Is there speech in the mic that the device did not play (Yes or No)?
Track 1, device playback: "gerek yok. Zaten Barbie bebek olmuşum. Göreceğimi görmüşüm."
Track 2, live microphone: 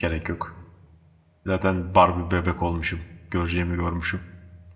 No